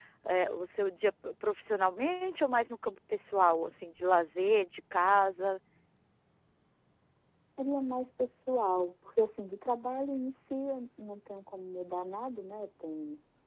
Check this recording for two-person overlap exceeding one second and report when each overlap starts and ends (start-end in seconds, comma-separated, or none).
none